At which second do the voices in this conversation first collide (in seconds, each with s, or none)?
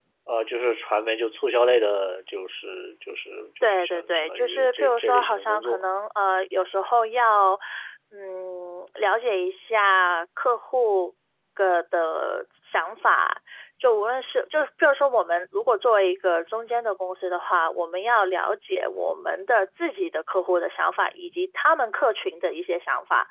3.6 s